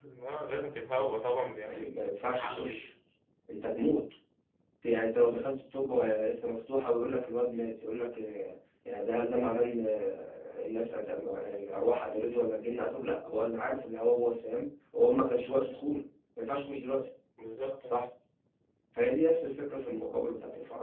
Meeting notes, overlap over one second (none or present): present